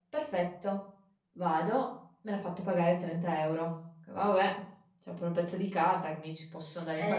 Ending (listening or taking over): taking over